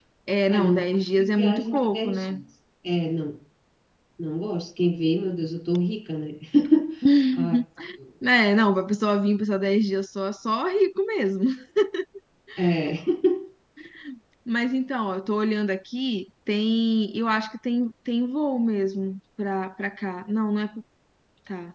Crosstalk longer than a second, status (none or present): present